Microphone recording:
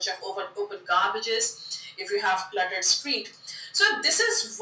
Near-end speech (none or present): none